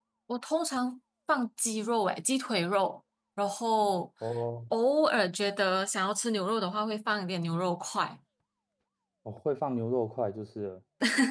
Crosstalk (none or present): none